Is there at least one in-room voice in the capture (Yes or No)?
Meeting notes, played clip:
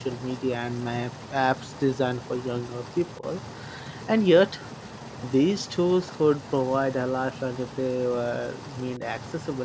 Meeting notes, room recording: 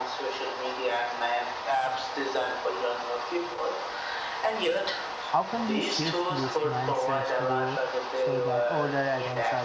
Yes